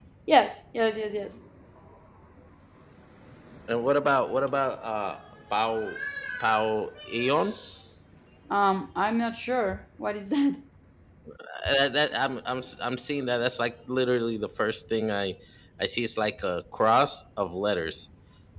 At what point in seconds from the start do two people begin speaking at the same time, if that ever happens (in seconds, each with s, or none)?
none